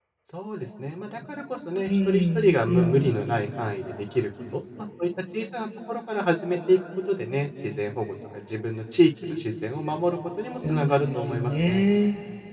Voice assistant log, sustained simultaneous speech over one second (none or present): present